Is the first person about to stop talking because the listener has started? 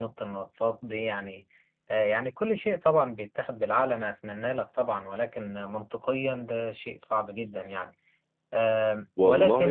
Yes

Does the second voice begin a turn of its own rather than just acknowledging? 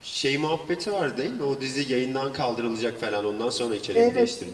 Yes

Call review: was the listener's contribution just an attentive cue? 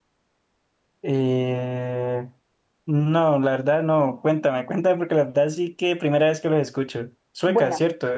No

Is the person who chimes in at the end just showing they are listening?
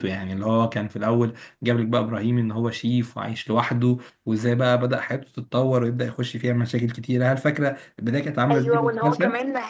No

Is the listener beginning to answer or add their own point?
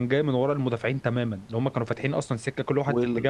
Yes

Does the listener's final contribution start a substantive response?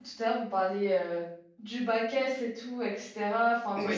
No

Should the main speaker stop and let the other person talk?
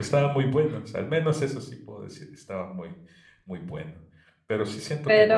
No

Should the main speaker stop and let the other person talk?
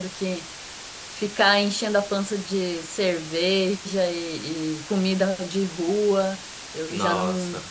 No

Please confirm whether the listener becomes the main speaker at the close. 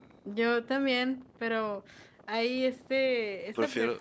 No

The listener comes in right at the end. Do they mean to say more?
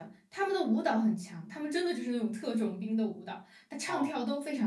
No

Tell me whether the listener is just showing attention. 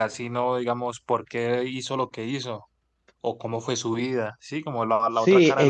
No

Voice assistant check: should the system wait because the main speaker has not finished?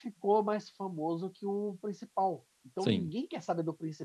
Yes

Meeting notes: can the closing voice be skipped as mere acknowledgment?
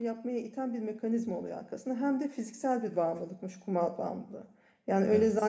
Yes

